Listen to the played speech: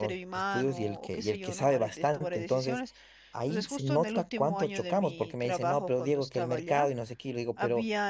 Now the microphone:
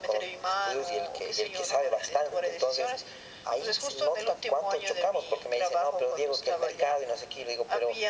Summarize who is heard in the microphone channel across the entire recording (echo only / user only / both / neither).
echo only